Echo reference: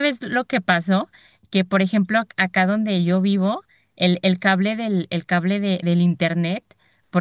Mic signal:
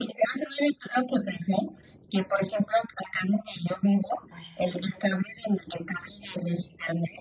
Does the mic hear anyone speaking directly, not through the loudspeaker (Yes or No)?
Yes